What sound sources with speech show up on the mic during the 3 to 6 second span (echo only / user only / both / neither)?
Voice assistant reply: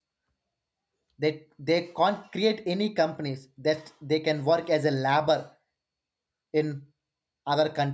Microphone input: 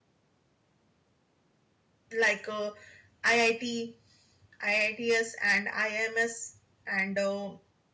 user only